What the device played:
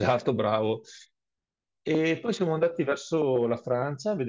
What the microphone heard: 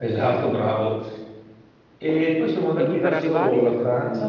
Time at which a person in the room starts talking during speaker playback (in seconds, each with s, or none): 2.7 s